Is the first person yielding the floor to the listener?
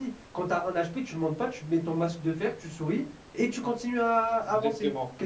Yes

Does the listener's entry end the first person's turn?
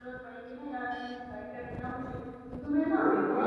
No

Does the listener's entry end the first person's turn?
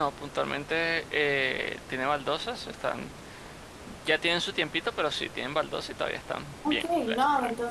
Yes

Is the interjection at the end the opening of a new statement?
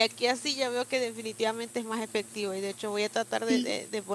No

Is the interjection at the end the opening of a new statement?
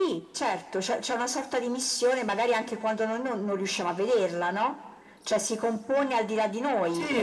Yes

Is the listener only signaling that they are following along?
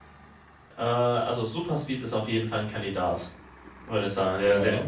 Yes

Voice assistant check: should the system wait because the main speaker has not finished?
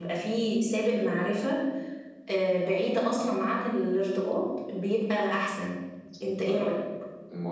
No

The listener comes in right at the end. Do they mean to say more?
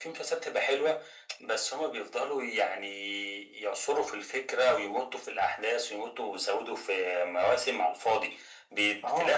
No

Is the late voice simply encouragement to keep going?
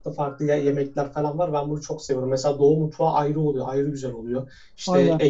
Yes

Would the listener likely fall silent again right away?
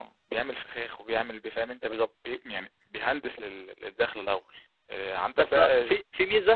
No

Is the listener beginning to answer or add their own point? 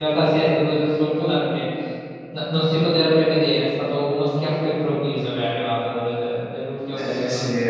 Yes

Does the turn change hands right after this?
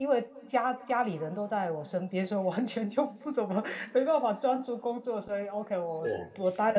No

